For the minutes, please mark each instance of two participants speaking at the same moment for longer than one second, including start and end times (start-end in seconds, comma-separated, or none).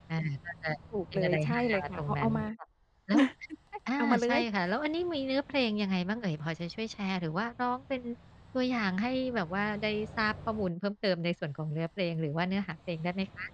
1.1-2.4